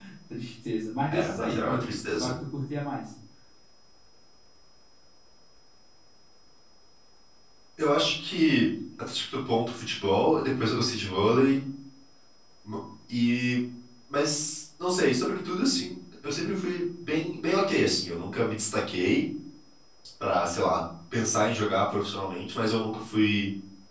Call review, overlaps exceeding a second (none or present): present